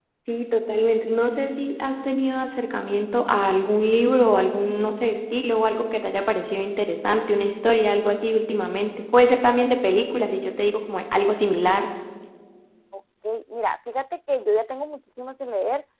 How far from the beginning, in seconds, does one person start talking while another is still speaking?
none

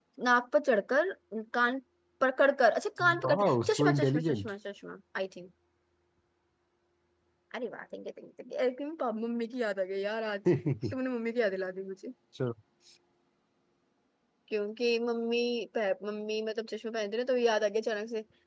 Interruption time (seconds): 3.2 s

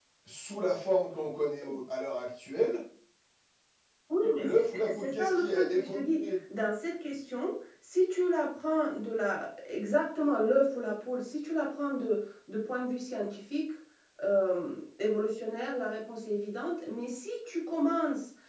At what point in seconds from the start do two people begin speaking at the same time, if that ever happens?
4.4 s

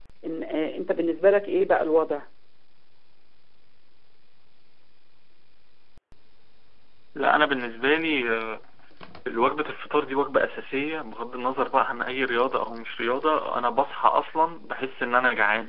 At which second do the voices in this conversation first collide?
none

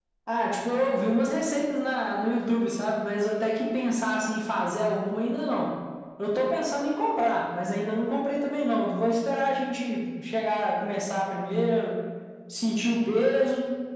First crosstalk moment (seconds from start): none

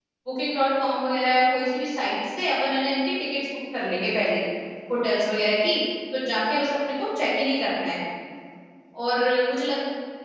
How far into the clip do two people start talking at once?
none

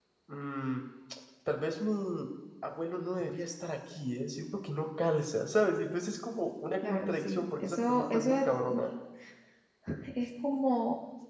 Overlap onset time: 6.8 s

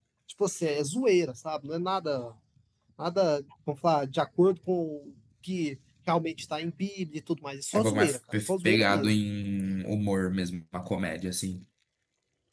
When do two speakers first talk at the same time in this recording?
7.7 s

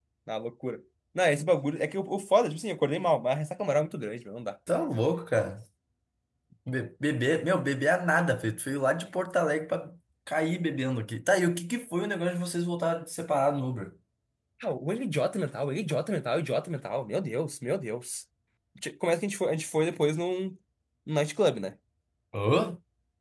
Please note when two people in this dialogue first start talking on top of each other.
none

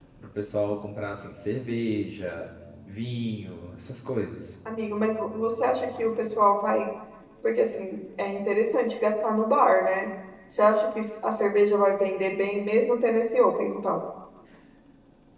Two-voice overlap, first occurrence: none

